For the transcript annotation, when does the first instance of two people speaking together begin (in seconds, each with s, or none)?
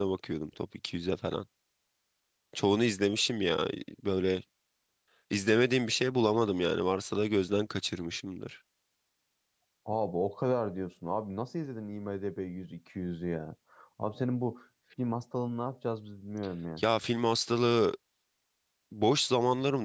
none